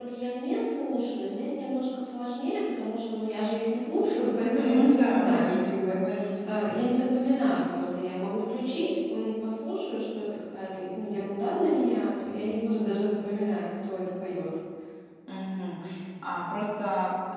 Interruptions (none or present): present